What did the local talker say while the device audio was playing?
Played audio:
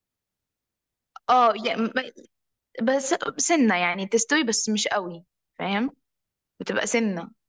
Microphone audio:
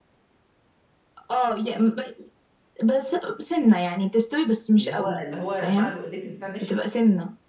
اللي هو اللي هو مع الوقلات اللي بتاع ناشف

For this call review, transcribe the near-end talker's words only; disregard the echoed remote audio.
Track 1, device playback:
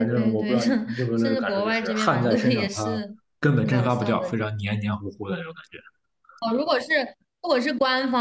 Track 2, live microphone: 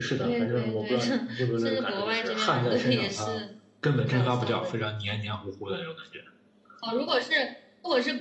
none

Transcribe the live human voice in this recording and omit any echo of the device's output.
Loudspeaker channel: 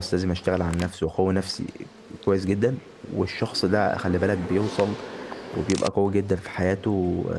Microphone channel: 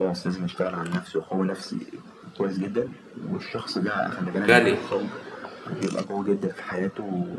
غني

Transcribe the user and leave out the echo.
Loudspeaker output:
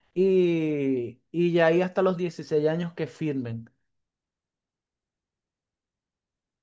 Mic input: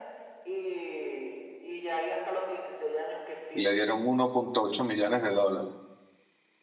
y le dieron uno punto ocho millones de dólares.

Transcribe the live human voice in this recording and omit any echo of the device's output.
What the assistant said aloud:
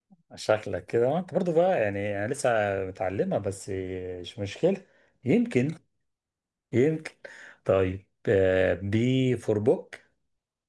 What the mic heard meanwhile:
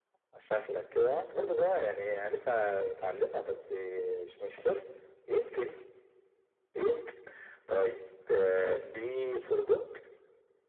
none

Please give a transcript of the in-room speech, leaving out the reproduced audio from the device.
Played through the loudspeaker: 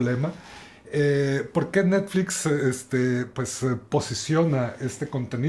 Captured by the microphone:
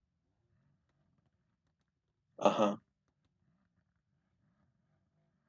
Ajá.

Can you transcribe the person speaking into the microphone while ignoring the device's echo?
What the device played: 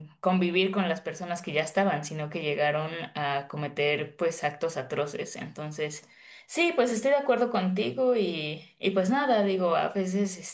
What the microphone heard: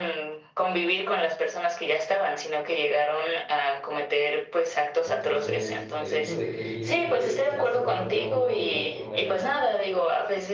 Entonces, el hecho de que él diga que se va a cerrar al mundo y va a ser una,

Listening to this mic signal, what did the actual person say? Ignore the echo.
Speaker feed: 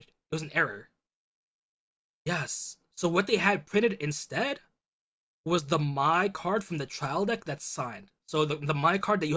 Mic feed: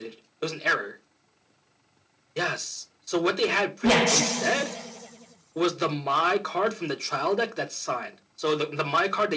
Yes.

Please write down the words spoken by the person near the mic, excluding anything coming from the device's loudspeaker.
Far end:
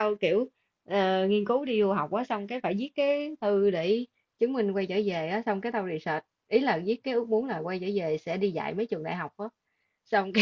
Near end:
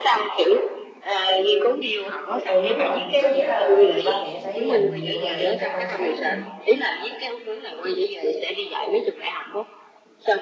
ừ đúng rồi có nghĩa là ba mẹ phải dành nhiều thời gian cho con cái lắm luôn á

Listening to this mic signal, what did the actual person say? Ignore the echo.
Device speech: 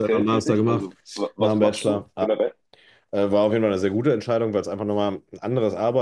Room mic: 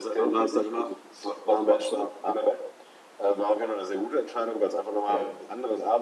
Ja,

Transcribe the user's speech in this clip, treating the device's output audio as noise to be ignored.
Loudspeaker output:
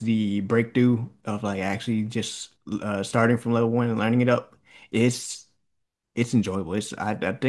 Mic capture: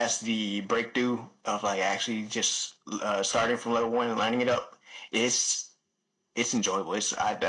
none

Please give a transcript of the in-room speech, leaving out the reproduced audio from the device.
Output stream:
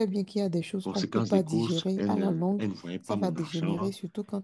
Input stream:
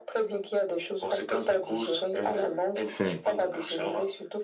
faire.

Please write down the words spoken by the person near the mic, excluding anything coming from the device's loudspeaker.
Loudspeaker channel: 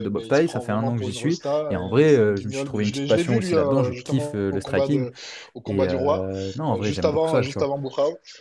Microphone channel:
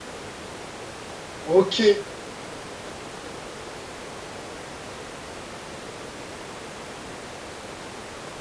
Ok.

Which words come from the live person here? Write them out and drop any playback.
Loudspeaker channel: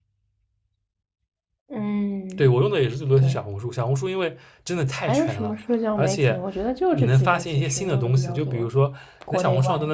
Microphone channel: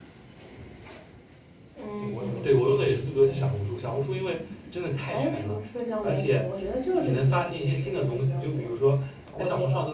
对我也用推荐，

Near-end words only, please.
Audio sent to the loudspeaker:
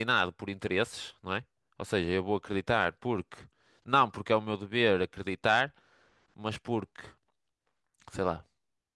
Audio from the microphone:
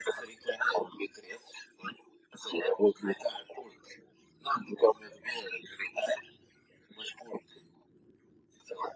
none

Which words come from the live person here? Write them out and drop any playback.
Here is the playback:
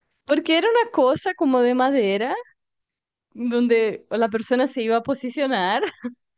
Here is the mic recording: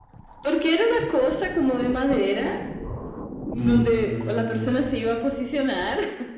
Mm, mm,

